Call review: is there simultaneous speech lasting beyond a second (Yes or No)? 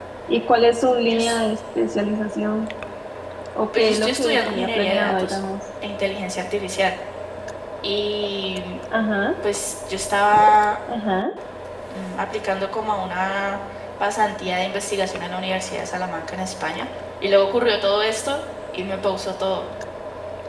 Yes